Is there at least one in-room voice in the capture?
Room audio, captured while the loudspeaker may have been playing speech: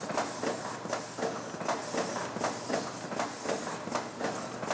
No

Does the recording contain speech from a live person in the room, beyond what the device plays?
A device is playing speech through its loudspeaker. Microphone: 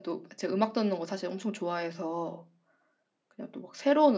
Yes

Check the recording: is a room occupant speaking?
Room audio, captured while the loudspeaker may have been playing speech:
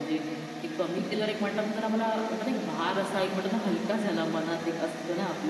Yes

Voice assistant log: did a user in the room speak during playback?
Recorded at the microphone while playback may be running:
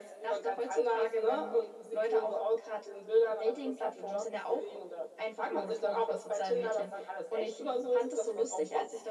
No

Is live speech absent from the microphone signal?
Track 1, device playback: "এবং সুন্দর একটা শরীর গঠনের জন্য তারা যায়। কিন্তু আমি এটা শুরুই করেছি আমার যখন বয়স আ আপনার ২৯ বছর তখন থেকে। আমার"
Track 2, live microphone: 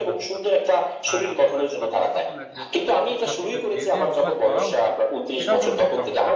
No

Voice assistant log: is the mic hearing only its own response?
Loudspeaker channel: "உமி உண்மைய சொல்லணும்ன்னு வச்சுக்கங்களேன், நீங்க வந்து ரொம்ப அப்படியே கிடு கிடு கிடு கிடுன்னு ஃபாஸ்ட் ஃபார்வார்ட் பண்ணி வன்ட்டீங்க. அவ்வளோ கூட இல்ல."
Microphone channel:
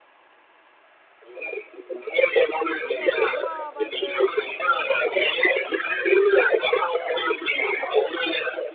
No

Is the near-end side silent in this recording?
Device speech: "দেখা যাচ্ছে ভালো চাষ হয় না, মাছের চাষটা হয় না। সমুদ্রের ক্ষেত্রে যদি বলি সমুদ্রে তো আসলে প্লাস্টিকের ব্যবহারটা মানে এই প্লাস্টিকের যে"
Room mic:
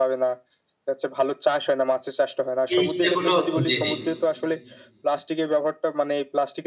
No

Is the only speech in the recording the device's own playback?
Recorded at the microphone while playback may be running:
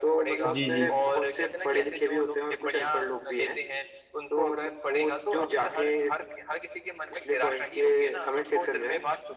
No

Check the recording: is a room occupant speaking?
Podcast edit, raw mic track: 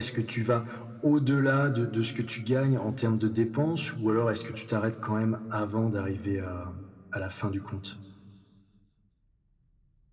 No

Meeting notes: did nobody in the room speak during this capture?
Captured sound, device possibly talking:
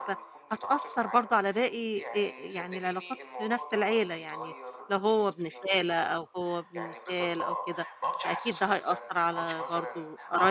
No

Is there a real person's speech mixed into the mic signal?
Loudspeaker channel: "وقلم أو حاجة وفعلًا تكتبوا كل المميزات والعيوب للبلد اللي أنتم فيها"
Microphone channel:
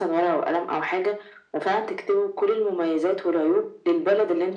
No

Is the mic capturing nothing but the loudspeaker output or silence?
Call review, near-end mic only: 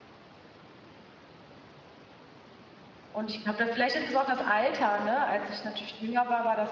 No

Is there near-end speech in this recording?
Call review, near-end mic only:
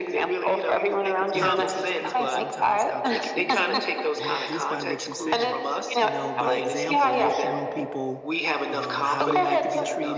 Yes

